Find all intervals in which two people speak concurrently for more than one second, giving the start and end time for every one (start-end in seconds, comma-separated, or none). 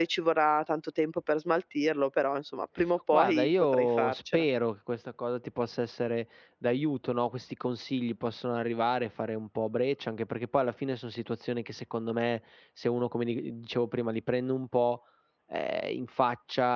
3.1-4.5